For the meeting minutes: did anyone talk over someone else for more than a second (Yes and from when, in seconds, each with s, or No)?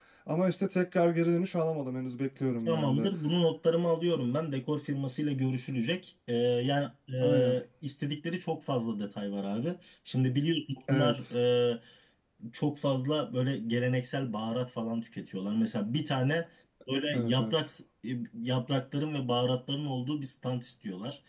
No